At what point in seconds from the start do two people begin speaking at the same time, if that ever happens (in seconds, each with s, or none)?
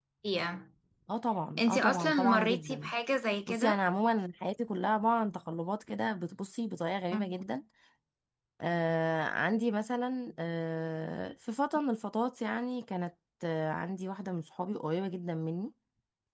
1.6 s